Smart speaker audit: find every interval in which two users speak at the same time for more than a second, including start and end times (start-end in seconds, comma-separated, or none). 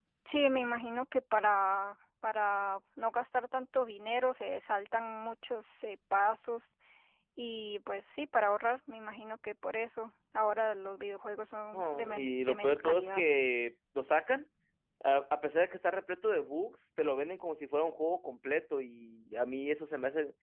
11.7-13.2